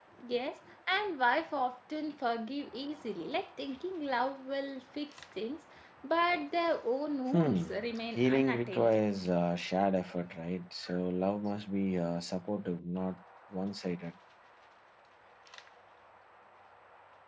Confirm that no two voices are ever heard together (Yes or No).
No